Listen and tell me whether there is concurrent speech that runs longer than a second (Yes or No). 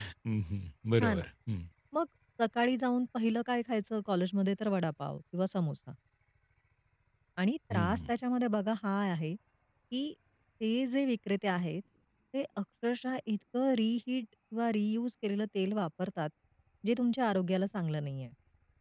No